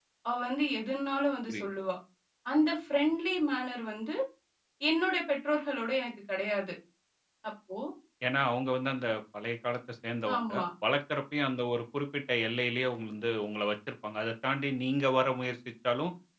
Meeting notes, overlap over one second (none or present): none